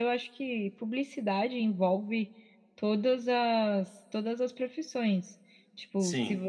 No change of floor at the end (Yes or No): Yes